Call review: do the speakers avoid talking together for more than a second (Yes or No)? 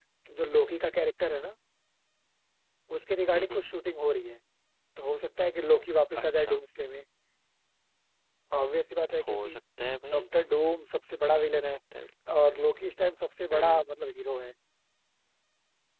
Yes